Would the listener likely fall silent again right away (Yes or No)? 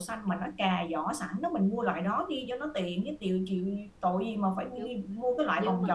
No